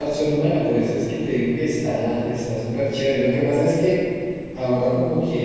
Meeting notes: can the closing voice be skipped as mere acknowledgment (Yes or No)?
Yes